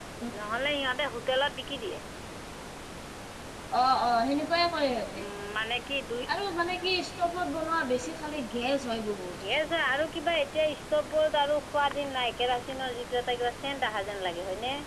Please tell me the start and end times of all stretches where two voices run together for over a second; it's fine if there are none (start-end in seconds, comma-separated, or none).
none